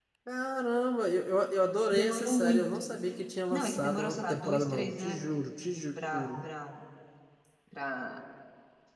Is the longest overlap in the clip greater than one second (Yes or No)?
Yes